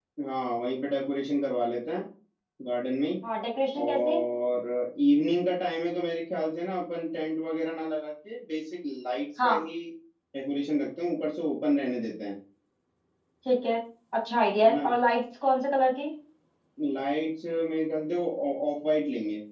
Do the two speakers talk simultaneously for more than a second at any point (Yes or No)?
No